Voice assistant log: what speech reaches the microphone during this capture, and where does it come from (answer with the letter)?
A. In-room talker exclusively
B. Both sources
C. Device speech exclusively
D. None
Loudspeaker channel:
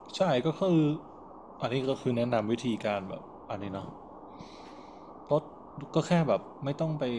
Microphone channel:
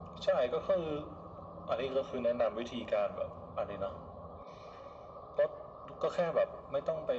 C